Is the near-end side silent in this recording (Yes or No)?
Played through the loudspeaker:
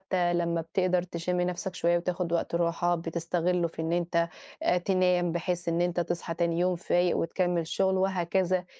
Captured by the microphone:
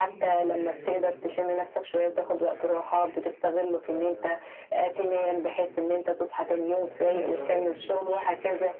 No